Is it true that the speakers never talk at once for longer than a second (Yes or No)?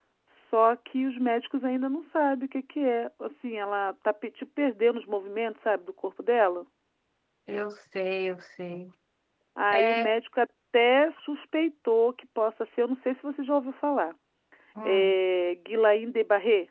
Yes